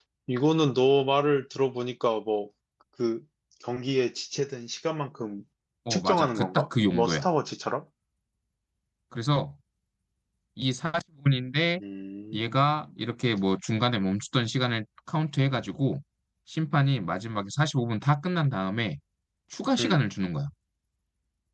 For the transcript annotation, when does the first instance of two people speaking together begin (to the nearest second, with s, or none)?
6 s